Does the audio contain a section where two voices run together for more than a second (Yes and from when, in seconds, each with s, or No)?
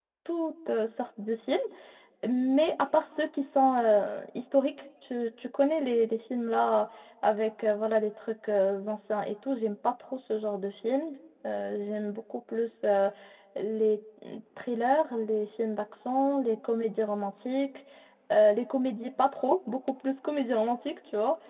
No